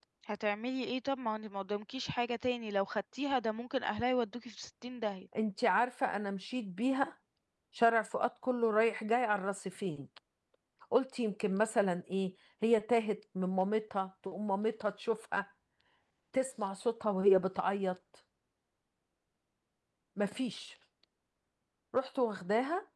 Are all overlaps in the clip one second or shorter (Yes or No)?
Yes